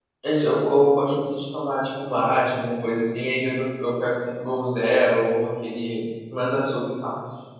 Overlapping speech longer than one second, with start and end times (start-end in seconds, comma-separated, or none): none